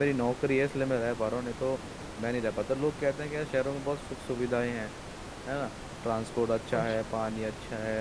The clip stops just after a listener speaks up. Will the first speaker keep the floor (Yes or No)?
Yes